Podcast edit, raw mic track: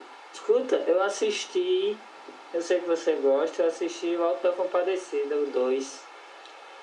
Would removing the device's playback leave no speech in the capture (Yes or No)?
Yes